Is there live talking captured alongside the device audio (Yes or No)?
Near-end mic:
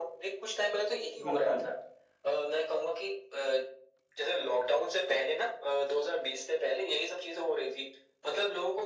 Yes